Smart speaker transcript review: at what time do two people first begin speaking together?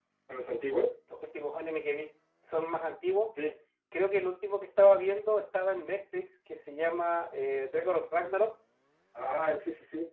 none

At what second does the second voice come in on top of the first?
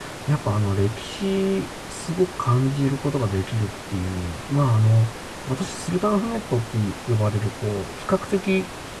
none

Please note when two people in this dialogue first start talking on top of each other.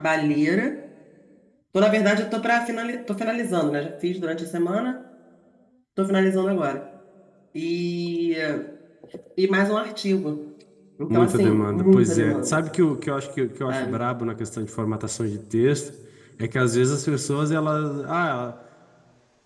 11.1 s

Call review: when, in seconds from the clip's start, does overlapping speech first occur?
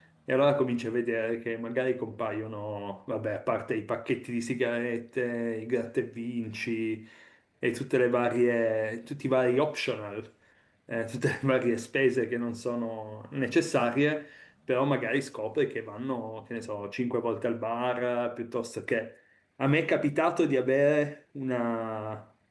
none

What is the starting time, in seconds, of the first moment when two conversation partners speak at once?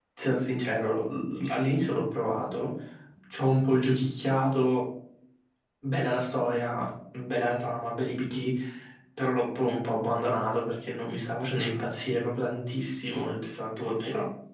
none

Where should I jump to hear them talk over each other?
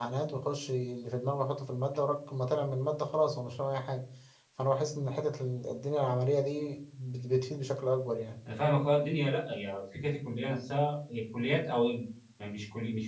none

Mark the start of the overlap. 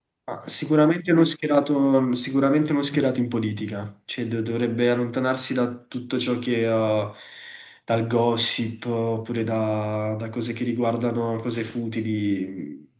none

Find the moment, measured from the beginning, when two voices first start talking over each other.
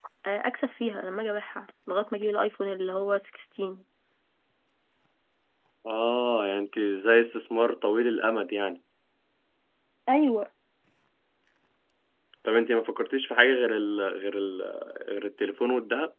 none

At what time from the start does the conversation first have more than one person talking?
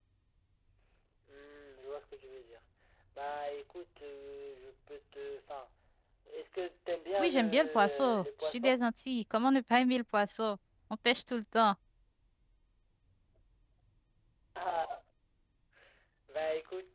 7.2 s

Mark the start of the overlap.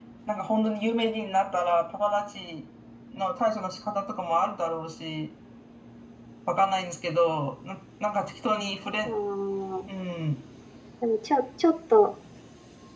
none

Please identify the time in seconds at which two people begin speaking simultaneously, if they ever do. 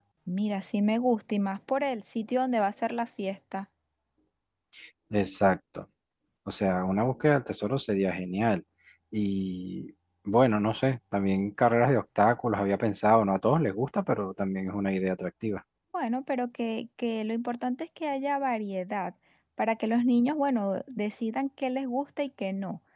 none

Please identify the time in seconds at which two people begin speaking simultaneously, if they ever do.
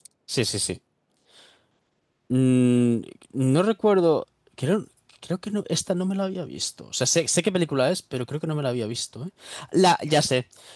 none

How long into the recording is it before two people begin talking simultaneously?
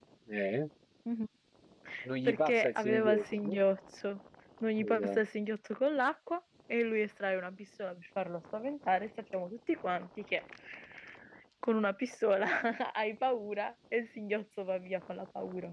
2.2 s

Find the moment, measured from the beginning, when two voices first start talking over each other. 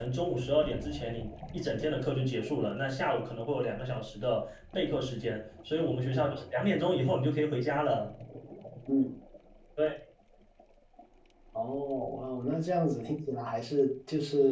none

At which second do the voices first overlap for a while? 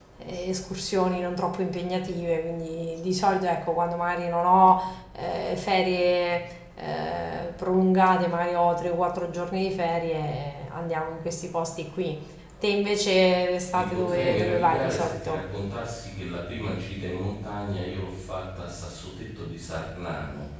13.7 s

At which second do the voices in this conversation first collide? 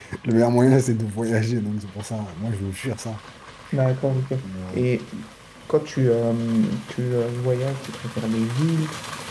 none

